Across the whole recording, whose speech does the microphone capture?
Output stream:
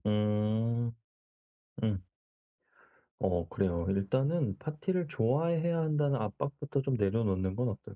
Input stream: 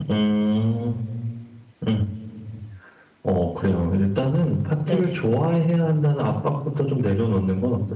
both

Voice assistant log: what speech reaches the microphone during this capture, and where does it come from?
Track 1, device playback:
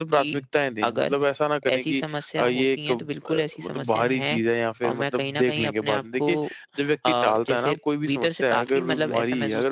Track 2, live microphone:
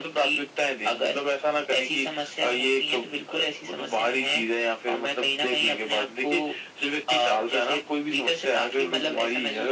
echo only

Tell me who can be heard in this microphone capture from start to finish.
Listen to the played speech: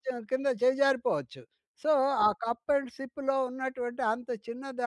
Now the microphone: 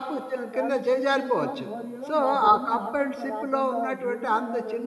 both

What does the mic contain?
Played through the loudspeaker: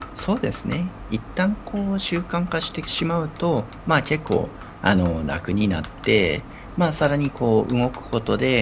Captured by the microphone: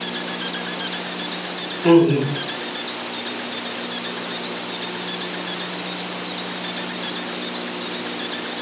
user only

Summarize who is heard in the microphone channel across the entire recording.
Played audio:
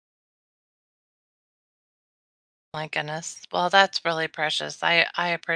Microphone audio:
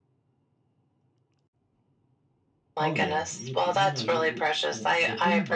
both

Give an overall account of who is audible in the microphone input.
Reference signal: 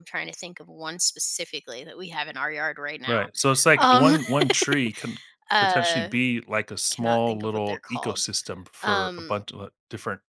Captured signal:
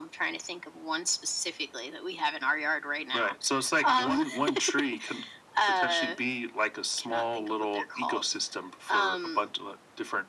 echo only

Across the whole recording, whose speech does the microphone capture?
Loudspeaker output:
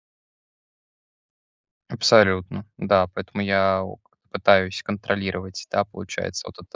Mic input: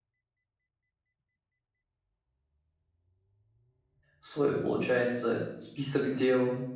user only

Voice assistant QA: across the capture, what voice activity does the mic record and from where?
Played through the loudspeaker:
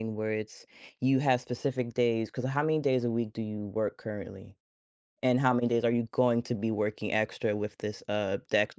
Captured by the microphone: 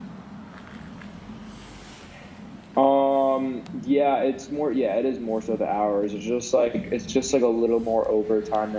user only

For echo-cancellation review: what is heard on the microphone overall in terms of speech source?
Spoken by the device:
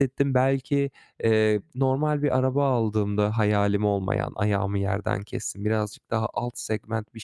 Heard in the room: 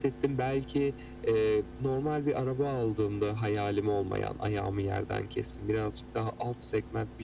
echo only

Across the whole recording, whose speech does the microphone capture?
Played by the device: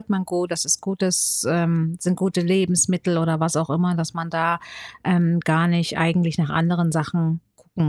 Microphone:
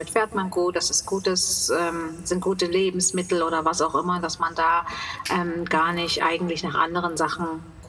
both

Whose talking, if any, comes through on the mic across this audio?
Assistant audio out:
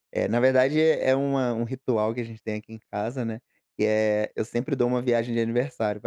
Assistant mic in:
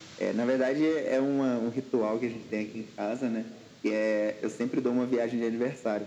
echo only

